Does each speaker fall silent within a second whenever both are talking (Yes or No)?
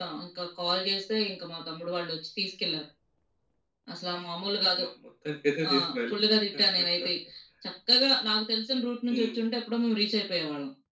Yes